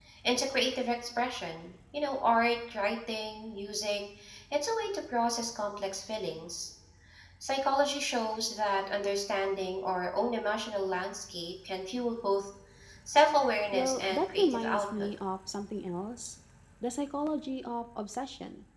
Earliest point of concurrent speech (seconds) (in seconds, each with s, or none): 13.7 s